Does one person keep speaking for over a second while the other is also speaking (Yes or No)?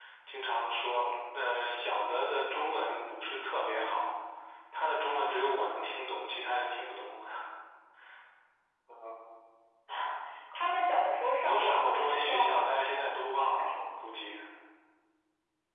Yes